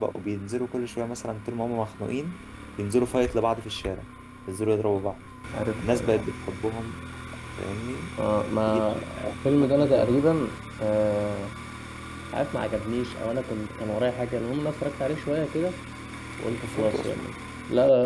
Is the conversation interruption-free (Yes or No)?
No